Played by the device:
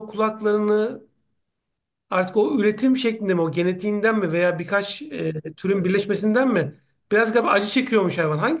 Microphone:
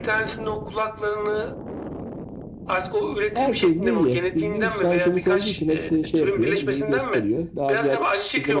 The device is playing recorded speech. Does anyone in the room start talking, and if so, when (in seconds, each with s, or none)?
3.3 s